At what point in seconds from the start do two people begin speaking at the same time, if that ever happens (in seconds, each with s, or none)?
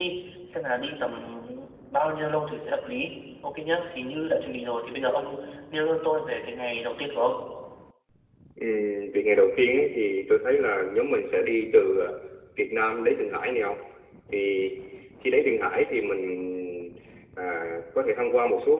none